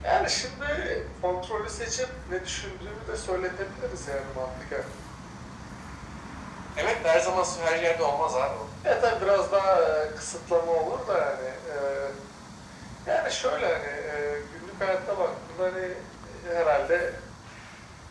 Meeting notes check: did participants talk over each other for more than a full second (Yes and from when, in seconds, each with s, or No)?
No